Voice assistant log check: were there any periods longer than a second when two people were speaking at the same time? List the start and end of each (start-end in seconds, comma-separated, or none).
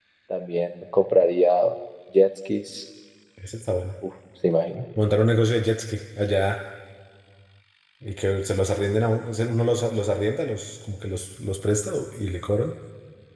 none